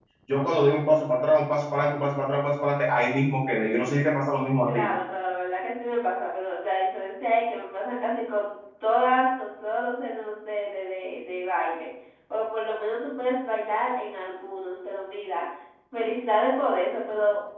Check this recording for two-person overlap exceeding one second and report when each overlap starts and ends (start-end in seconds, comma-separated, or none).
none